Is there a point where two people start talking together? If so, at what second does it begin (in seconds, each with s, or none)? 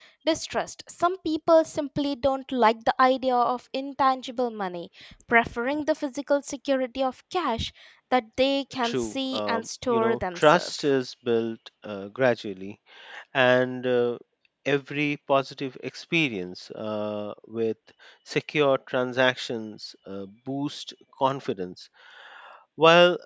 8.8 s